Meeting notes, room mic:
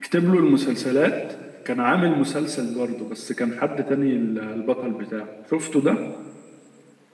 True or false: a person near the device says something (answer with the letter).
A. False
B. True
B